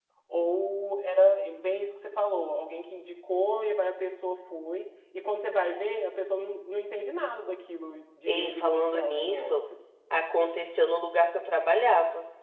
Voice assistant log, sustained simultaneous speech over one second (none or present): present